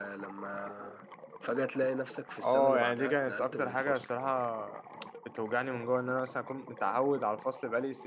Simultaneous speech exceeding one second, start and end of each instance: 2.4-4.1

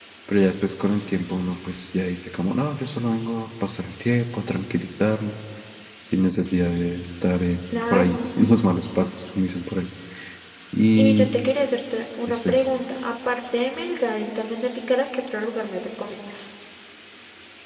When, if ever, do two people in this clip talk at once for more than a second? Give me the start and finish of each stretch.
none

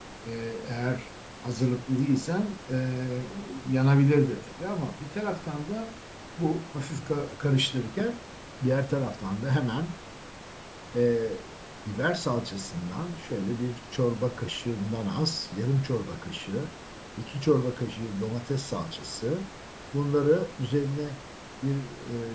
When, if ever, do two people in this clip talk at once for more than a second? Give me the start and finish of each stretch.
none

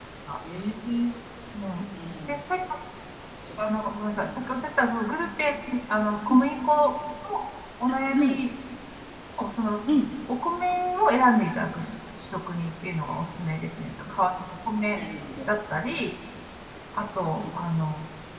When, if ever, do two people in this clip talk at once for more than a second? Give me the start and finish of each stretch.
none

